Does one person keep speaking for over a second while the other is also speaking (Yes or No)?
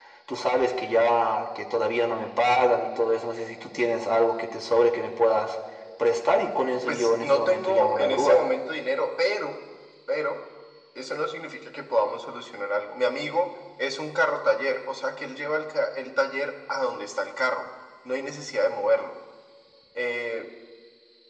Yes